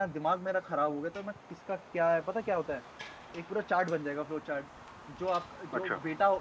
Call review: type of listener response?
listening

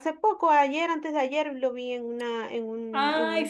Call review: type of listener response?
taking over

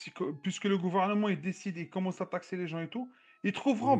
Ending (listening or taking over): listening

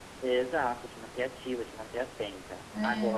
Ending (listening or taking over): listening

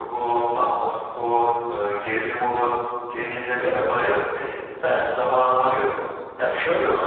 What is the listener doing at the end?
listening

